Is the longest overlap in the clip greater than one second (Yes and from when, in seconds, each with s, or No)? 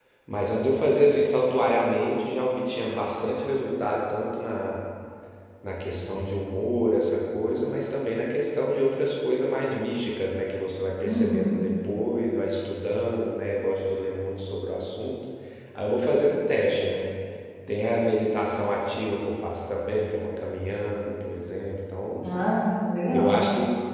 No